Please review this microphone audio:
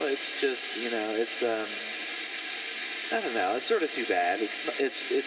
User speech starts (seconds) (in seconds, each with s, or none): none